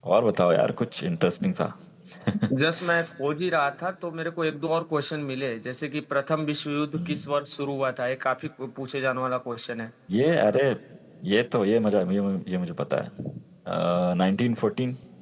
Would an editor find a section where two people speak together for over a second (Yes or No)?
No